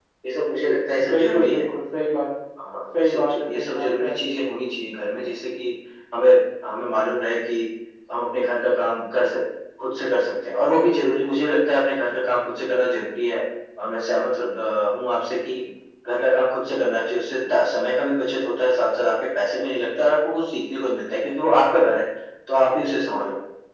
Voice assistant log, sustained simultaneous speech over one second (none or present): present